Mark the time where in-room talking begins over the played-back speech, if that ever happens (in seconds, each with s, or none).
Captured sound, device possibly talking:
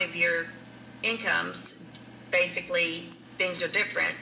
none